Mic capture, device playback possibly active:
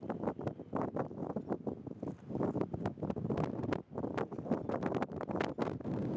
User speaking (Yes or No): No